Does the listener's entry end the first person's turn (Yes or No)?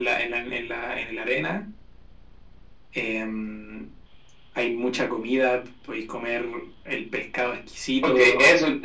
Yes